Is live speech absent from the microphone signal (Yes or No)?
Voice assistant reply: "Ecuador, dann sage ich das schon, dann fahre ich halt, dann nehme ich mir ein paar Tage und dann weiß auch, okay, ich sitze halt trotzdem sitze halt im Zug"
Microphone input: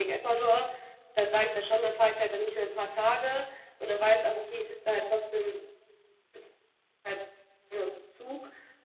Yes